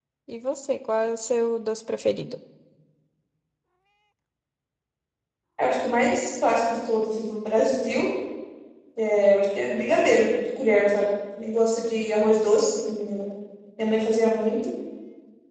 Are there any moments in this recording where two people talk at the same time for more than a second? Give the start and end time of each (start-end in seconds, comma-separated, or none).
none